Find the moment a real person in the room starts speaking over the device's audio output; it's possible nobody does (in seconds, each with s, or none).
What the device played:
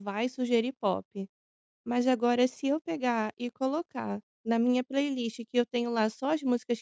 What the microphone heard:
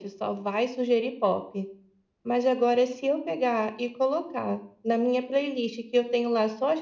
none